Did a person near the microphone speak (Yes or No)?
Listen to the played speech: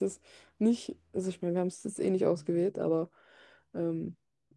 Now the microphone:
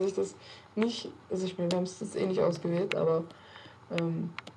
No